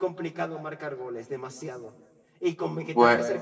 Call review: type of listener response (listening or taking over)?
listening